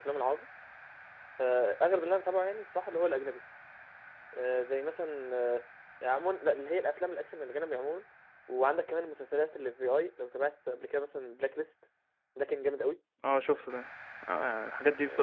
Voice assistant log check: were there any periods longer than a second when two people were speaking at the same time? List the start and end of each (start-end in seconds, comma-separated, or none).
none